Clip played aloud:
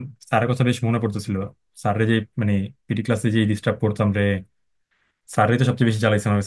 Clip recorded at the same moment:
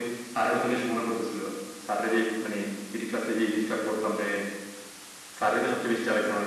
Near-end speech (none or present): none